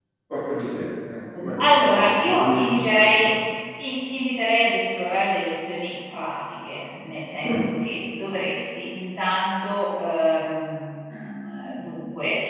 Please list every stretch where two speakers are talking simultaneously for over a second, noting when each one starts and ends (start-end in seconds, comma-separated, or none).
1.8-3.3